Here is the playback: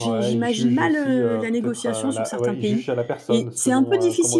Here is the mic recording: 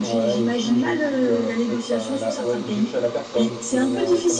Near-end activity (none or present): none